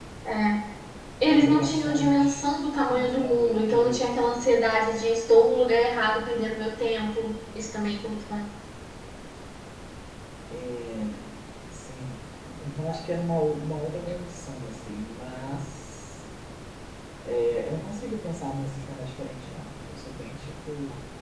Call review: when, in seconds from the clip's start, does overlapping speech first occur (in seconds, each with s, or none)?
1.2 s